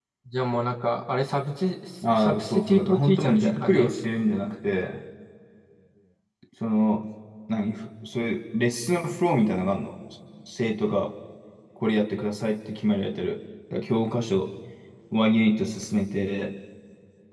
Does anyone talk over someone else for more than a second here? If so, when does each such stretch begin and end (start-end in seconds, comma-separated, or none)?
2.2-3.9